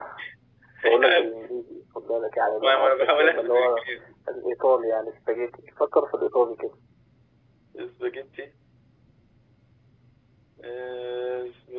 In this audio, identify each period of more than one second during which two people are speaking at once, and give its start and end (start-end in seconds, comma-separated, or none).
2.6-3.8